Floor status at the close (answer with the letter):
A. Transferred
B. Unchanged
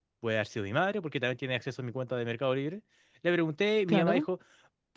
B